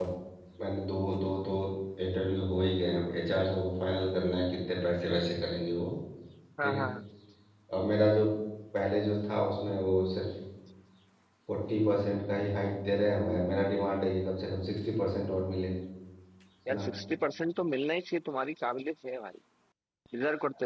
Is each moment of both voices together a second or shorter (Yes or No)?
Yes